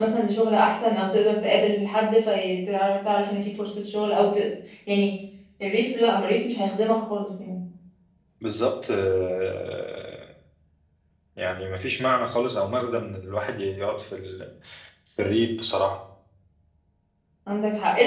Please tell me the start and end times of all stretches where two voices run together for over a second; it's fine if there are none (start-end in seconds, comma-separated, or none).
none